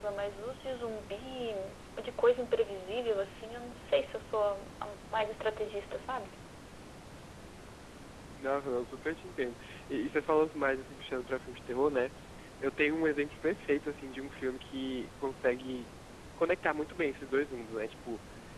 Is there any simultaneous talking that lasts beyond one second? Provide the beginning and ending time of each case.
none

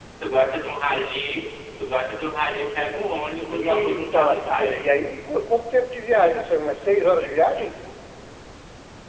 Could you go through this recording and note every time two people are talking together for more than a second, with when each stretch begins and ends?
3.5-4.8

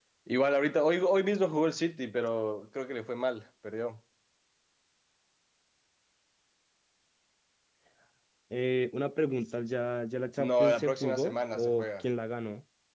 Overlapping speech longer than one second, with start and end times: 10.5-12.0

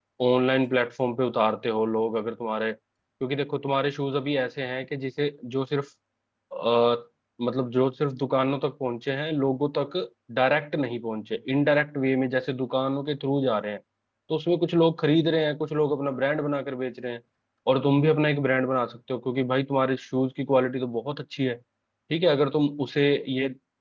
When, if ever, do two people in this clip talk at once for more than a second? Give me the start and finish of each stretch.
none

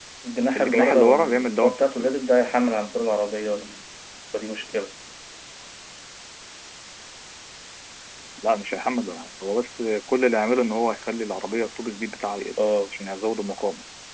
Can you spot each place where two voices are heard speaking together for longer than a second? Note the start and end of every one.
0.6-2.1

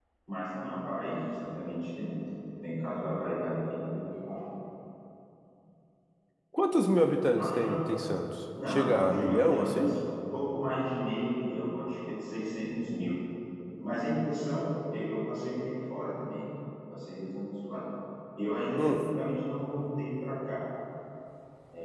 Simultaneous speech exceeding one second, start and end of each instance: 8.7-9.9

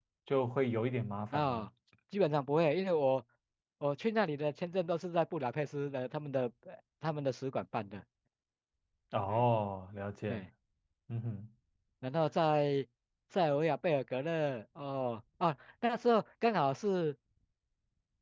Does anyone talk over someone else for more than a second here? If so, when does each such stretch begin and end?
none

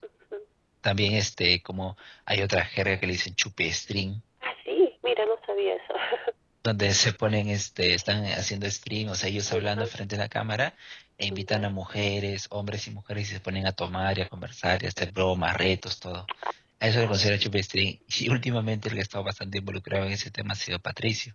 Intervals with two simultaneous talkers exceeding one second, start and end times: none

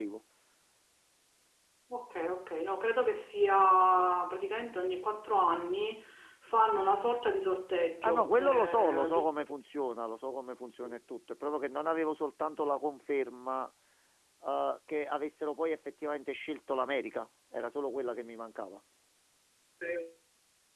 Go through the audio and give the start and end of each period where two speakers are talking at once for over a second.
8.0-9.5

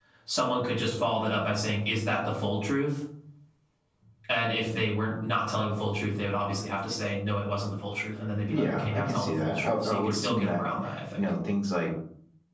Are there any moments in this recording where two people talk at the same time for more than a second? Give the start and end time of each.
8.5-10.6

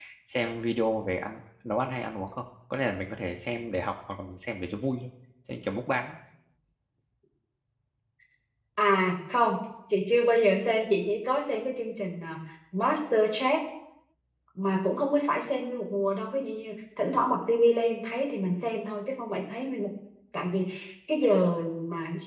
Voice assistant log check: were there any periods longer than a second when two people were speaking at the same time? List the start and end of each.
none

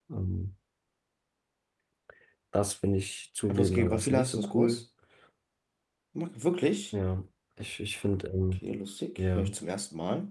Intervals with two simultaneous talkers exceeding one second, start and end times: 3.5-4.8

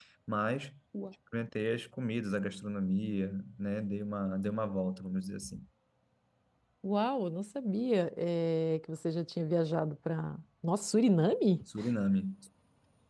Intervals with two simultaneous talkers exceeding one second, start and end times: none

